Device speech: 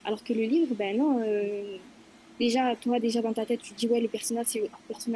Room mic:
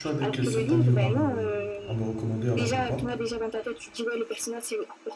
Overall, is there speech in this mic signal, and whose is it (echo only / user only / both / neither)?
both